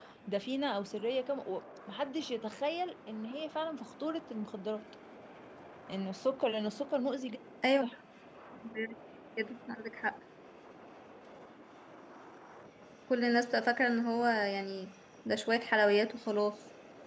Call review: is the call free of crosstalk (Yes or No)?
Yes